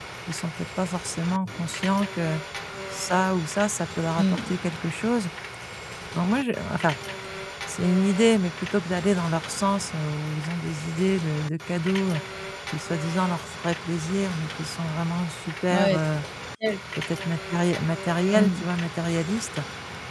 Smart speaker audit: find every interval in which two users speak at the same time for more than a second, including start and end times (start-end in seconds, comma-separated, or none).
none